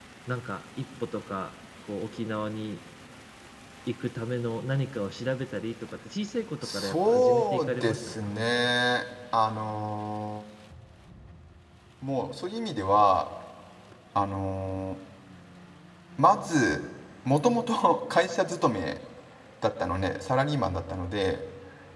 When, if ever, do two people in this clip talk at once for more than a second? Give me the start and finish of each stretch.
6.6-8.3

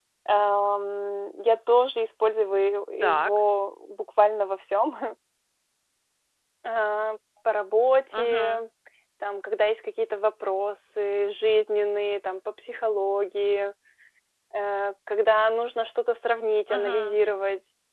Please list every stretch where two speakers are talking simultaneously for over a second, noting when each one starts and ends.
none

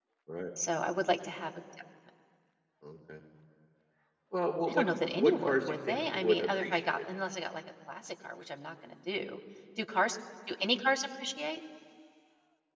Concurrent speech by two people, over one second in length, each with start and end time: 4.7-7.0

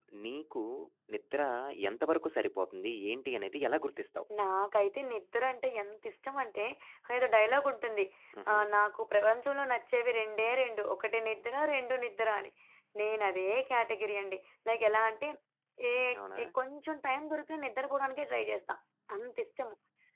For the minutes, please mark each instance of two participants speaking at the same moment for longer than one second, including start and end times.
none

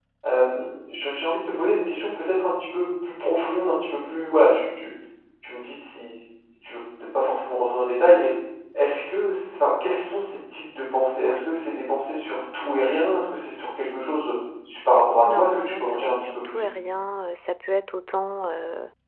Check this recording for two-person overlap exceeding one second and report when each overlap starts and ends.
15.3-16.7

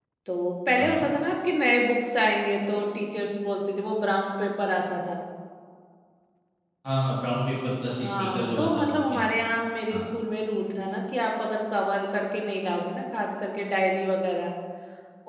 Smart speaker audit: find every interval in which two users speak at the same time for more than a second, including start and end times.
8.0-9.2

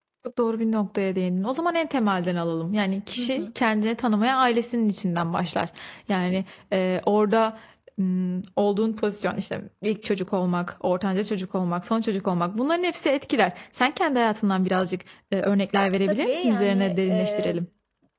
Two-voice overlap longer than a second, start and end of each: 16.0-17.6

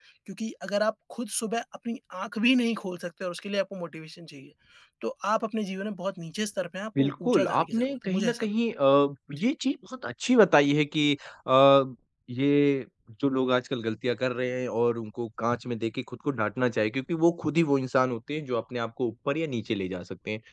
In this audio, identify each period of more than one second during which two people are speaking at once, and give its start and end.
7.0-8.5

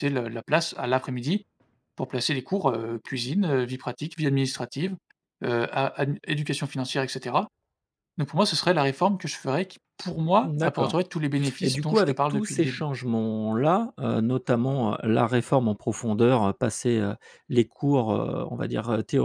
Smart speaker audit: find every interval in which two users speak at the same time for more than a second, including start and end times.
11.6-12.8

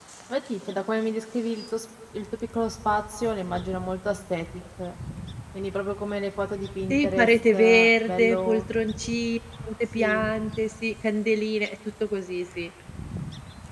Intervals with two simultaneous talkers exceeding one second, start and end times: 6.9-8.6

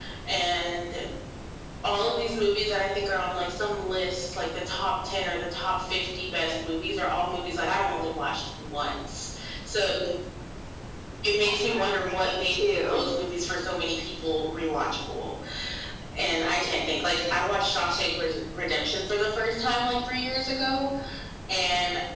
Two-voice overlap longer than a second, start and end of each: 11.4-13.0

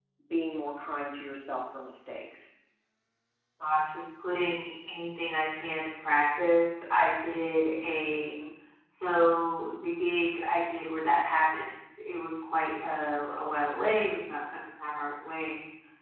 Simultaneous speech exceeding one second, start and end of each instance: none

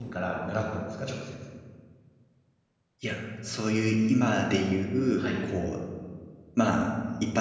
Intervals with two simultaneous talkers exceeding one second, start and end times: none

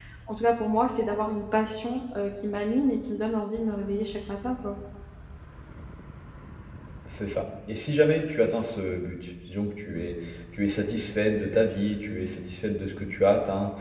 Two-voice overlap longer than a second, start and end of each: none

